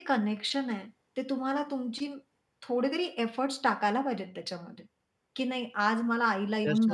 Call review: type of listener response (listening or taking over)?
taking over